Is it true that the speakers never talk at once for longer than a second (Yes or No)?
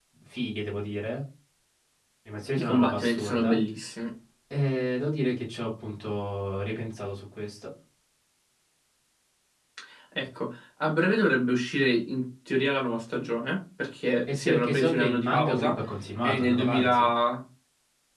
No